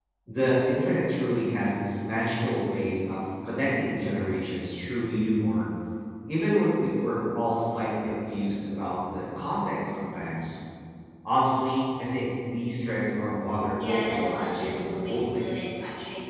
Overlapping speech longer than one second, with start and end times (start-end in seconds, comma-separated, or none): 13.9-15.5